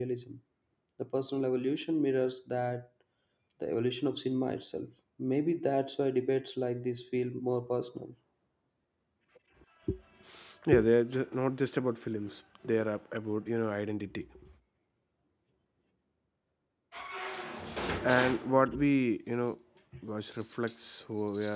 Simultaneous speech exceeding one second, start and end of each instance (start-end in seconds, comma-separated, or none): none